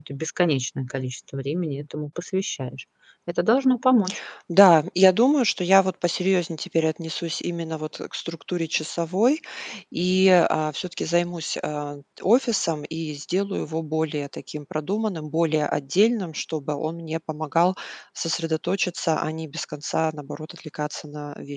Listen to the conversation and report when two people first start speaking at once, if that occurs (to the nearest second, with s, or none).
none